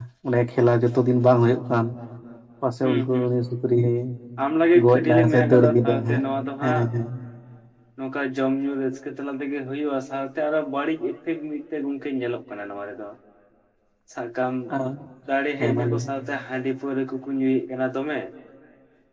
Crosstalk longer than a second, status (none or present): present